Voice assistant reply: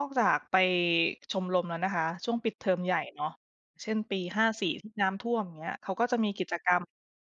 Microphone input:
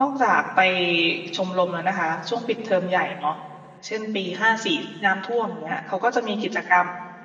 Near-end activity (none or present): none